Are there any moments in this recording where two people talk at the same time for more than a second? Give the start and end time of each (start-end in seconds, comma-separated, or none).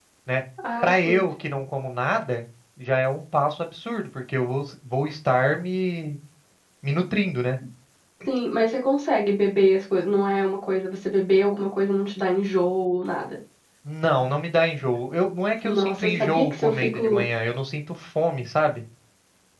15.6-17.2